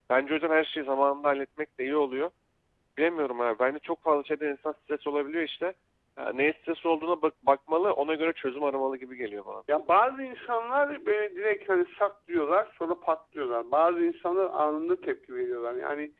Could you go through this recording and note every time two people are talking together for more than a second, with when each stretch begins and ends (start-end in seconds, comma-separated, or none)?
none